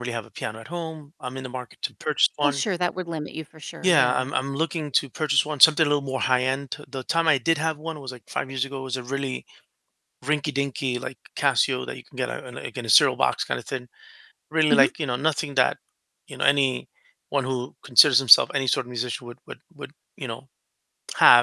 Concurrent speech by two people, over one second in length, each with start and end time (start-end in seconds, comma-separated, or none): none